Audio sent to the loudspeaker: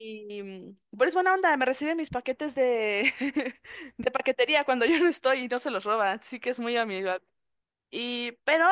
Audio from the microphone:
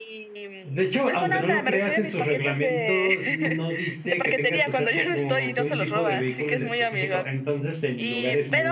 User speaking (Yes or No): Yes